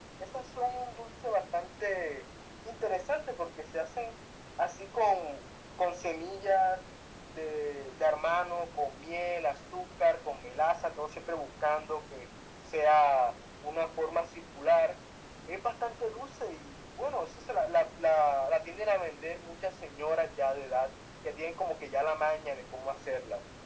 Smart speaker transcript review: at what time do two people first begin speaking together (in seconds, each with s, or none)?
none